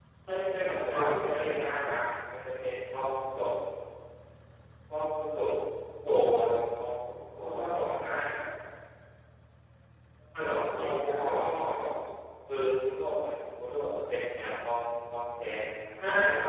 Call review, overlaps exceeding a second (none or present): present